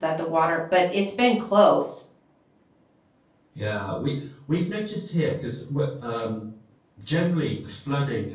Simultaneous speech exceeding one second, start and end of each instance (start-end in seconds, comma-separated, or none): none